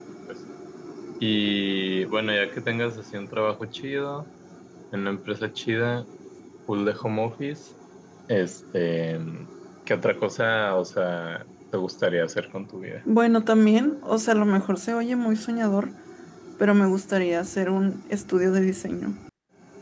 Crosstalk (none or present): none